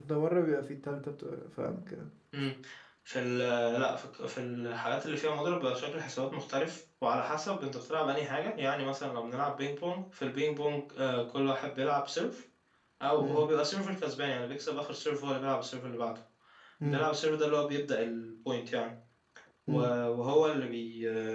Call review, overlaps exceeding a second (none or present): none